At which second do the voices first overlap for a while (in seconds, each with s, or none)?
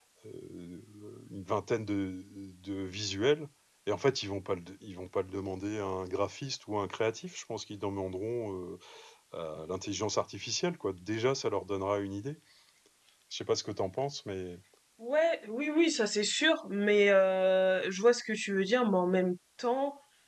none